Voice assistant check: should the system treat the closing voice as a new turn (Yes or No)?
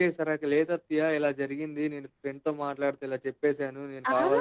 Yes